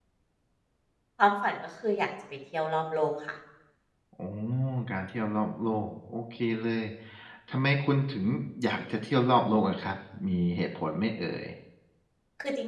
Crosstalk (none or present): none